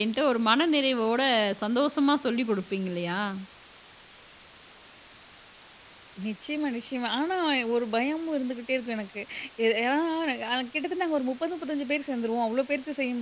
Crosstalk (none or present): none